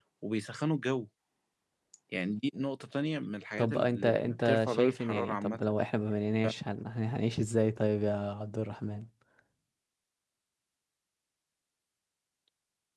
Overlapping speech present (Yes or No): Yes